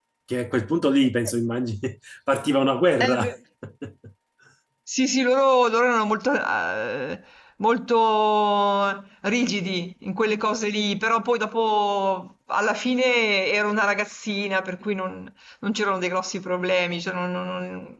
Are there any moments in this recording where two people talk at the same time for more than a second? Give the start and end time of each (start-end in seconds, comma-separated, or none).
none